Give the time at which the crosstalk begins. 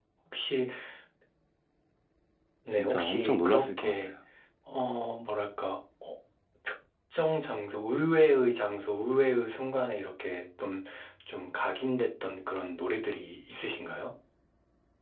2.7 s

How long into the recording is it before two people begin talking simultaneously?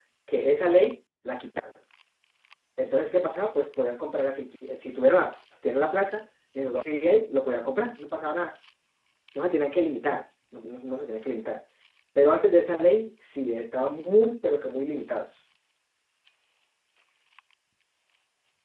none

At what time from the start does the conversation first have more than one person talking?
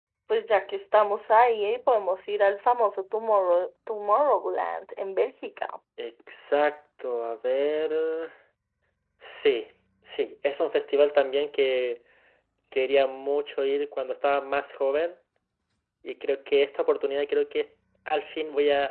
none

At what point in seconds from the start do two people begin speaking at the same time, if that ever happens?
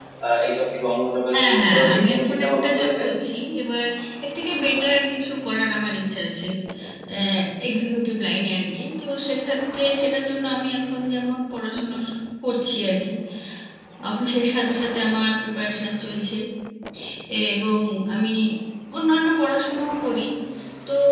1.3 s

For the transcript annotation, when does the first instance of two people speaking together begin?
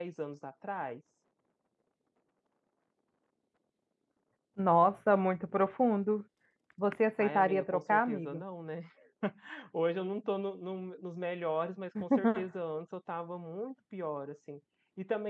7.2 s

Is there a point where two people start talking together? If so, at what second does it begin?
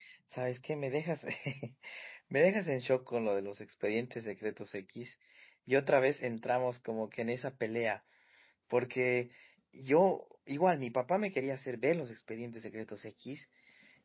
none

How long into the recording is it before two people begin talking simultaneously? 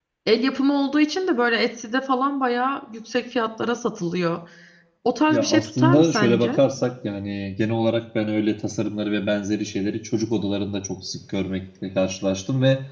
5.3 s

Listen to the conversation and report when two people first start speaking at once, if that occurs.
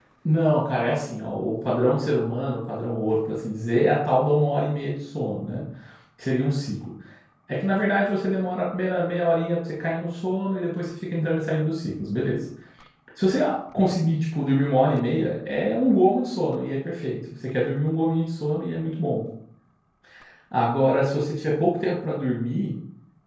none

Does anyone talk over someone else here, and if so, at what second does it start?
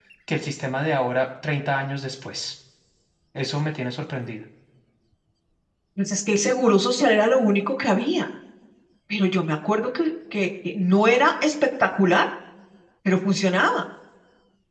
none

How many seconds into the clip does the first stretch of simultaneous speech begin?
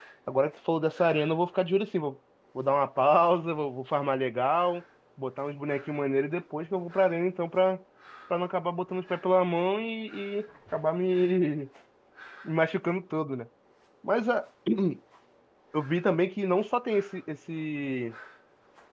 none

